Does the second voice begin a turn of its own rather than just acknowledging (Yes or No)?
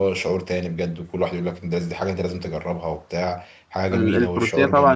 Yes